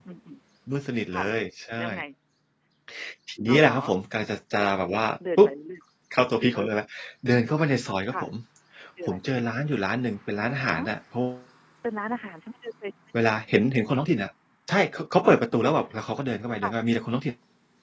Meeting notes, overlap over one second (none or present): none